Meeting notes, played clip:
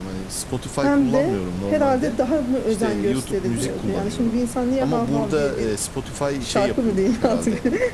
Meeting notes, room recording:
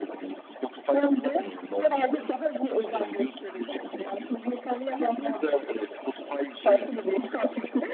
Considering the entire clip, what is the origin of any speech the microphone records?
echo only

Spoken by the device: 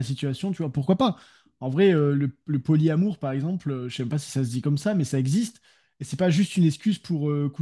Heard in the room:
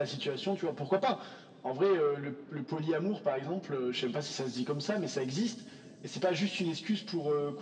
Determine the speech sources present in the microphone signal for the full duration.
echo only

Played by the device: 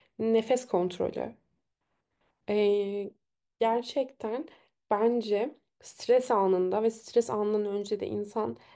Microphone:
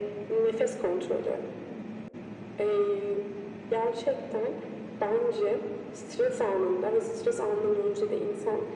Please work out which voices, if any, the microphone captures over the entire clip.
echo only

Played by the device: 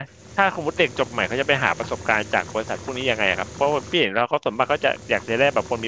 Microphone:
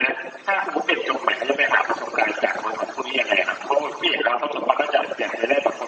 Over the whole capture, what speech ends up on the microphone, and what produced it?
echo only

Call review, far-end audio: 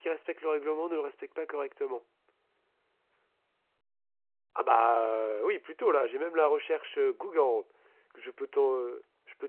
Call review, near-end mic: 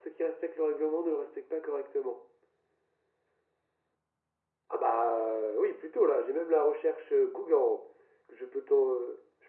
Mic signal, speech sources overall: echo only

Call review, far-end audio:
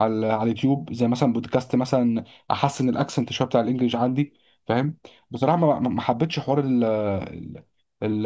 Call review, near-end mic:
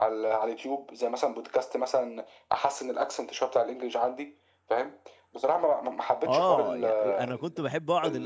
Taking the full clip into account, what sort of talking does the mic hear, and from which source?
both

